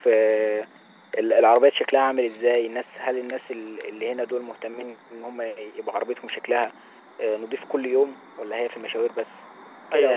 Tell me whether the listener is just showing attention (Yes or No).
No